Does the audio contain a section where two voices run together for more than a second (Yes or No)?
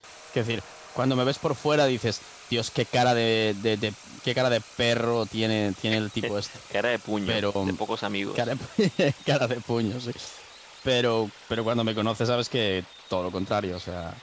No